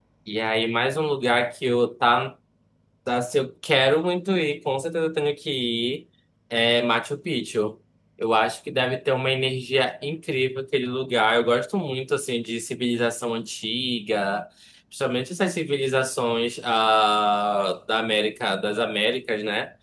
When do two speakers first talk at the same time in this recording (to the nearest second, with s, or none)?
none